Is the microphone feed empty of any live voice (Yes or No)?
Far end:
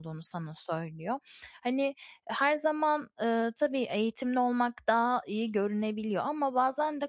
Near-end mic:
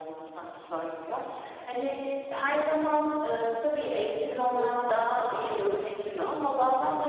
No